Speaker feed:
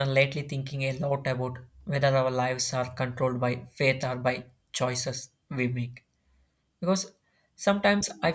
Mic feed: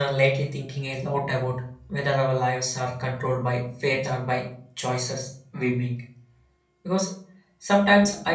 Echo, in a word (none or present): present